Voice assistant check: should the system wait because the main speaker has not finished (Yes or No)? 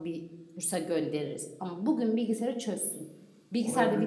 No